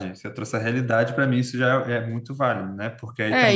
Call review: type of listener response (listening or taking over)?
taking over